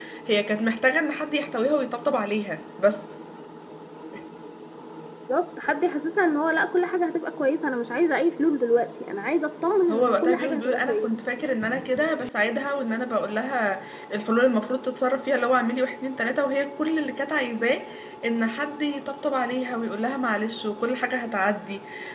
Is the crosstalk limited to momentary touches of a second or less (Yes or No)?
No